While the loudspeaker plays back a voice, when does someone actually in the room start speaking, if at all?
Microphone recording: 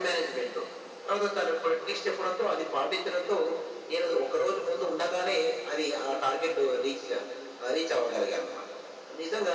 none

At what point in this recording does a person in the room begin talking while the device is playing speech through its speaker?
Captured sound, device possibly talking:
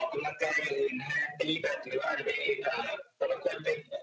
none

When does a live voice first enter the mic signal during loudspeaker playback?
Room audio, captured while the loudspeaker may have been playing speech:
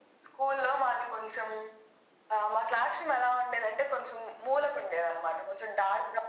none

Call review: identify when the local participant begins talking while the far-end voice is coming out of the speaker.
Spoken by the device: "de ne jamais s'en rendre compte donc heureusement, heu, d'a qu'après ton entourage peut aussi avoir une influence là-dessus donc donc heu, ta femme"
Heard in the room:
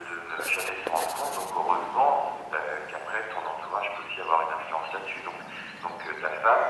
none

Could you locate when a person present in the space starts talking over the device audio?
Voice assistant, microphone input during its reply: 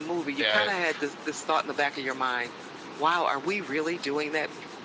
0.4 s

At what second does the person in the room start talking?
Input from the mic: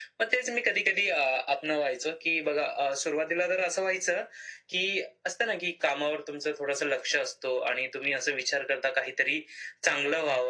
none

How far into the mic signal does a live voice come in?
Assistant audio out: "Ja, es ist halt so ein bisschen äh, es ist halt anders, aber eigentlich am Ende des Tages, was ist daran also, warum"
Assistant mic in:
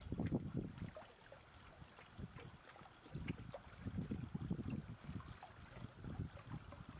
none

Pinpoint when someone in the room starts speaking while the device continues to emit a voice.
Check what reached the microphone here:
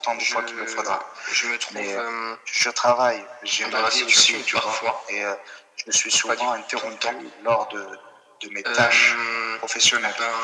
none

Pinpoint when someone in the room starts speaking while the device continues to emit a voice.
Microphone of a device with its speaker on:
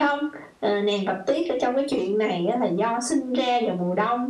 none

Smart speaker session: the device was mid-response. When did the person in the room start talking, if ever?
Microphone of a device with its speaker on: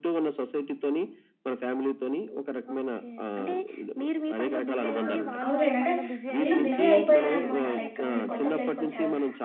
5.0 s

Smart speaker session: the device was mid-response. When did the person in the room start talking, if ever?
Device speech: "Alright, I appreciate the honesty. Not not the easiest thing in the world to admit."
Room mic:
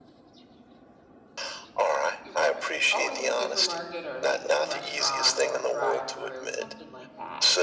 2.2 s

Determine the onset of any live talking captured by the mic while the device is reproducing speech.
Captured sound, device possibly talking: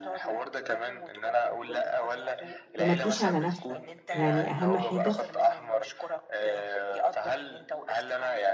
2.8 s

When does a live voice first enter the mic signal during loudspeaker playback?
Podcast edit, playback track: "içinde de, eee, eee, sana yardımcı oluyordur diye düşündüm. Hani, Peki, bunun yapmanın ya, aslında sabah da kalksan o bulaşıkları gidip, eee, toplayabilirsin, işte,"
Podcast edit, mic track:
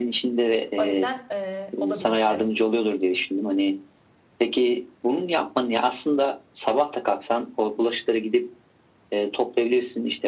0.8 s

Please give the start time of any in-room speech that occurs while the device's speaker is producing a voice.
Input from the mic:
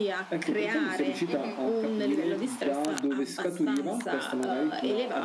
1.3 s

